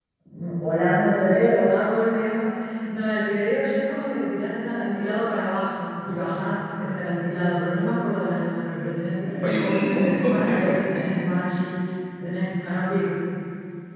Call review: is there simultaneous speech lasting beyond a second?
Yes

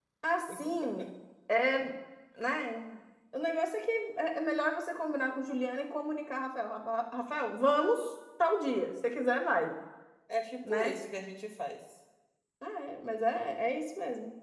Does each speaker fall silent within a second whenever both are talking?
Yes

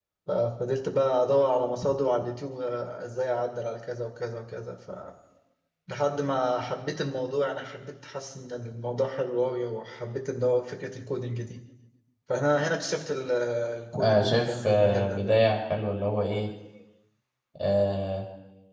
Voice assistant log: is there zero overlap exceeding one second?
No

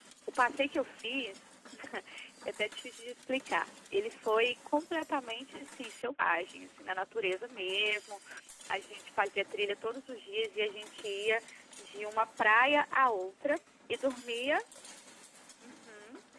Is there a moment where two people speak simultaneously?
No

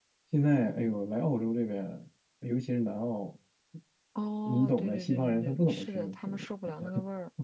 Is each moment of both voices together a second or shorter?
No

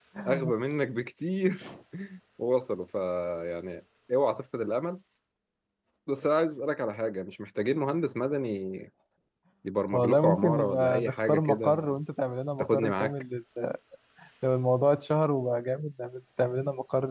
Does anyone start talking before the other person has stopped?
Yes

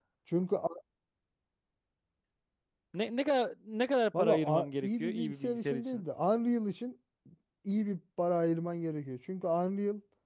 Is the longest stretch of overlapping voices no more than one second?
No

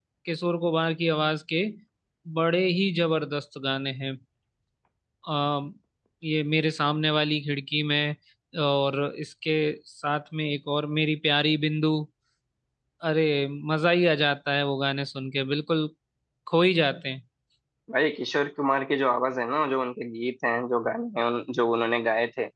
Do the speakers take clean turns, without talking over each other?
Yes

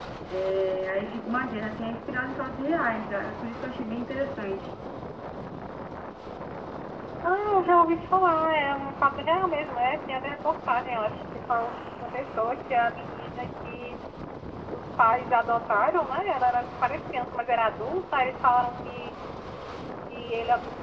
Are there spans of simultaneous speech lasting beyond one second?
No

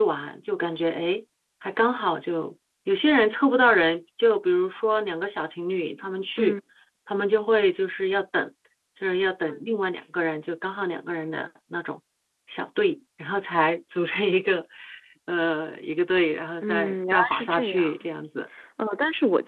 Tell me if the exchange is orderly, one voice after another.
No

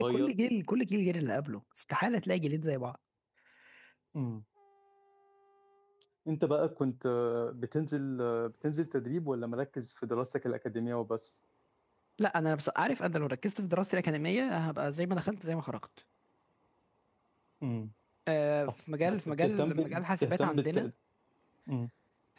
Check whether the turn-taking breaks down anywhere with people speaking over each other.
Yes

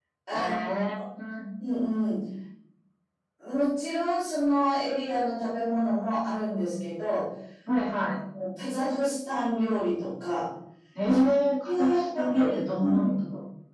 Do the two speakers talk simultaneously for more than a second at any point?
Yes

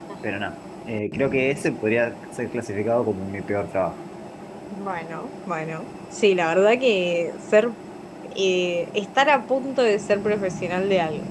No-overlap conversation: Yes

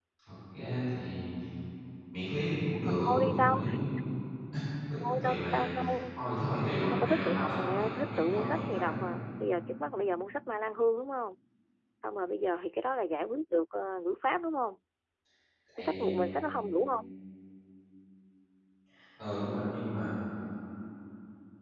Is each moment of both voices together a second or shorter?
No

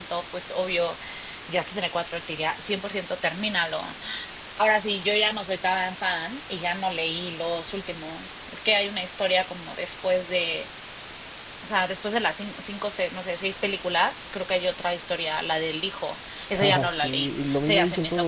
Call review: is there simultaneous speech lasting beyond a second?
Yes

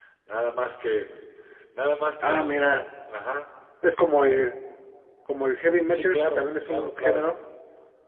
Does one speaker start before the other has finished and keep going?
Yes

